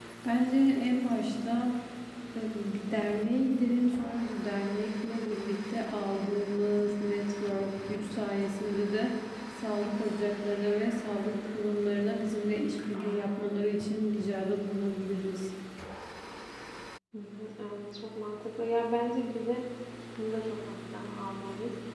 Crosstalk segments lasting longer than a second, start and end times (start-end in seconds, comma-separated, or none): none